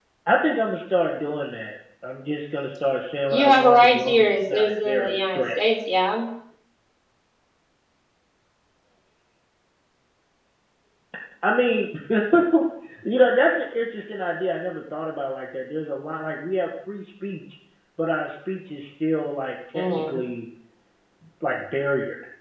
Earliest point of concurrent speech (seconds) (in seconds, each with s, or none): 3.3 s